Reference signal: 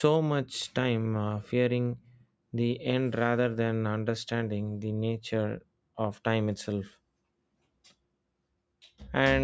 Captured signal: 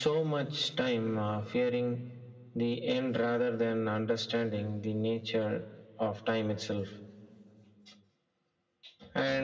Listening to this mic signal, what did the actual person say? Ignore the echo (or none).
none